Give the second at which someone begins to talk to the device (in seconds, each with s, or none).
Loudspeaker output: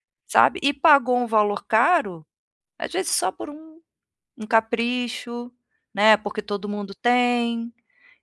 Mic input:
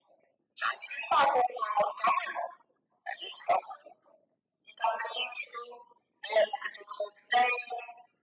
none